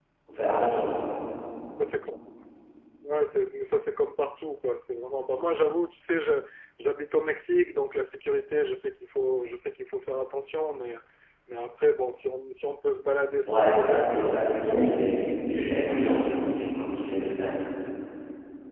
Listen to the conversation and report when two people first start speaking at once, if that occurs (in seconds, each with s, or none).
13.4 s